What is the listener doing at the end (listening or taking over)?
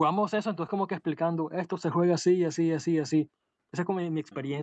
listening